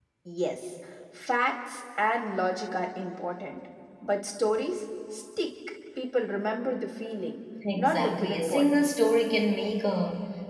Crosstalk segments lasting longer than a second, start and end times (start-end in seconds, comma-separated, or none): 7.7-9.0